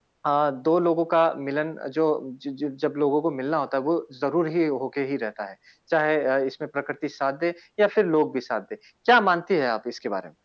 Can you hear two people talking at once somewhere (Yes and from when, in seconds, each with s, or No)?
No